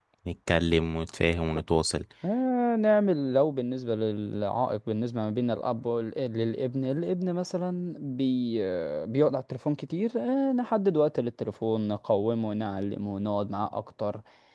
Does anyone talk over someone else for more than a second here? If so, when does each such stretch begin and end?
none

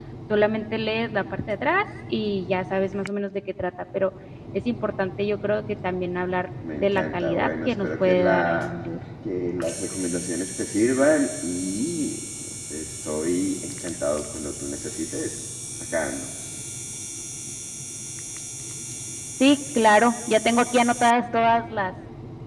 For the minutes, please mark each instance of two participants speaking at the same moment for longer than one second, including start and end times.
6.8-8.8

